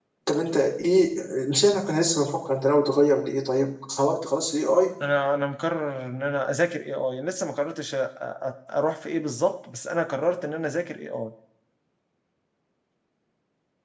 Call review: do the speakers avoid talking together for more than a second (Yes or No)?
Yes